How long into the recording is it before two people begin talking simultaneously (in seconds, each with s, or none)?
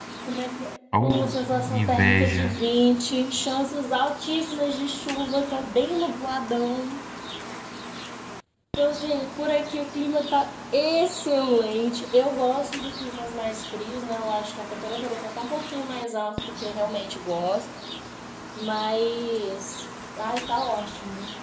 1.0 s